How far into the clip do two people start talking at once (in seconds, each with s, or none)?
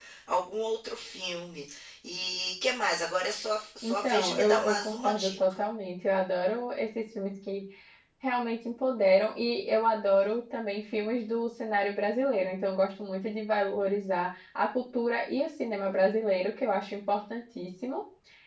3.8 s